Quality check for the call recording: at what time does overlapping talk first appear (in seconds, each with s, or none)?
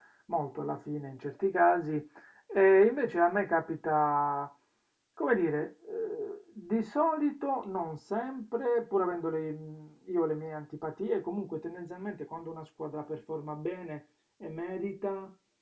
none